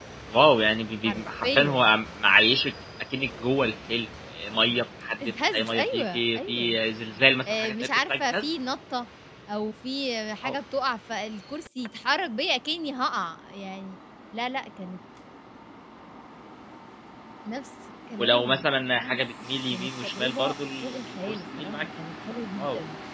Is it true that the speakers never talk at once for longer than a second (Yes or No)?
No